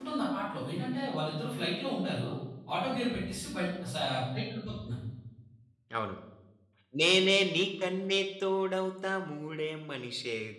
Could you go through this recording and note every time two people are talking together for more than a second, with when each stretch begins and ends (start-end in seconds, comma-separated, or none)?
none